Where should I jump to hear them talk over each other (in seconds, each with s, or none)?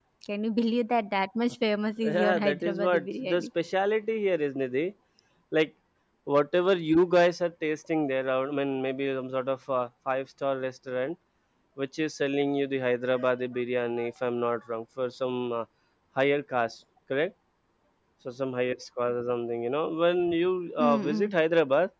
2.0 s